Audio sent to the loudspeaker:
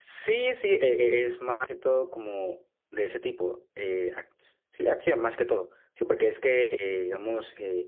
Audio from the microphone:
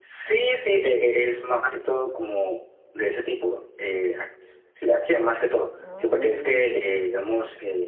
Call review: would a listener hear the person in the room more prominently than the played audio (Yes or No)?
No